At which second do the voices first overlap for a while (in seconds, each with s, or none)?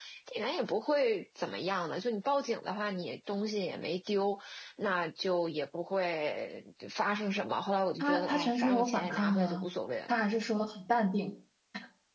8.0 s